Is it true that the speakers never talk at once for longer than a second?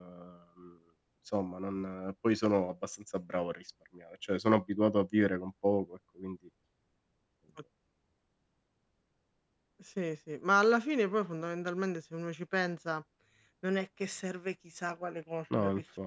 Yes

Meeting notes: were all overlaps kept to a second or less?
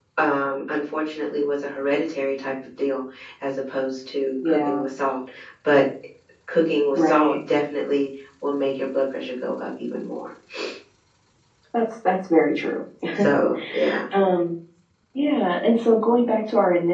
Yes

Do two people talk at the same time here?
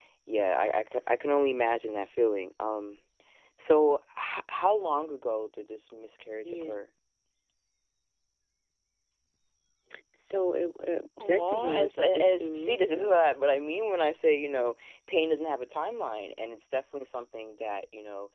Yes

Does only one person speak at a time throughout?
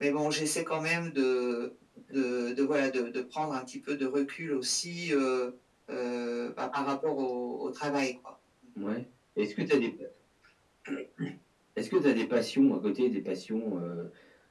Yes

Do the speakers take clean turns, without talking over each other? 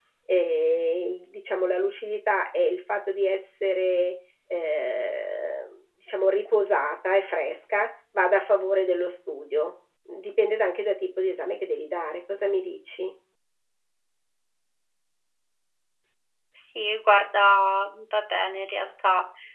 Yes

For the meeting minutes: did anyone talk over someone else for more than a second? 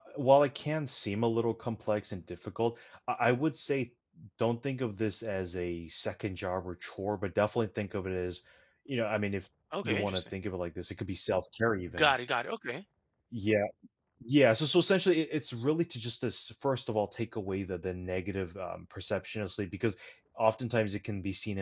No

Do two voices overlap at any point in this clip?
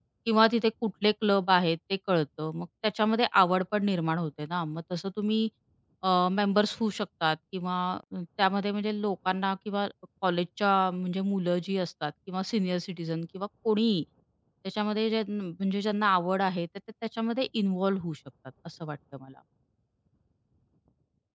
No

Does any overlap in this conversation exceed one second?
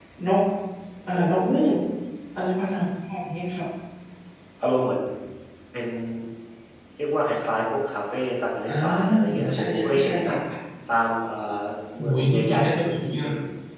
Yes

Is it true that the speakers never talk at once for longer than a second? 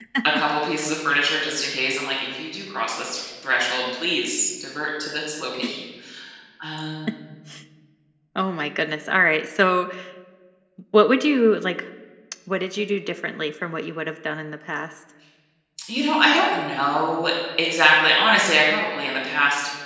Yes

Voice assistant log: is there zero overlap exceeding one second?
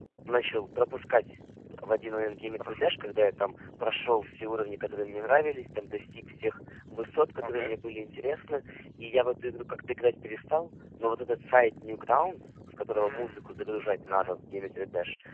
Yes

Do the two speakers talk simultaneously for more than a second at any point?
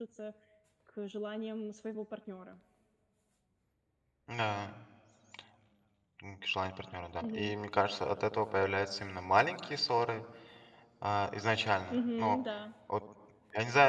No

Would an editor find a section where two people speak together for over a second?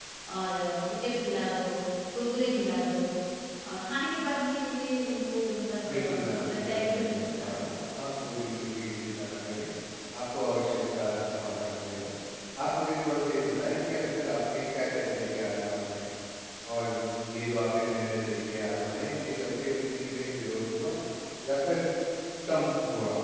Yes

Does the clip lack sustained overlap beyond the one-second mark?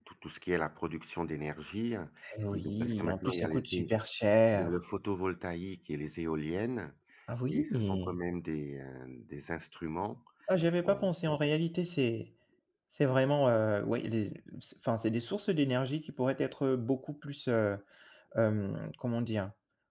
No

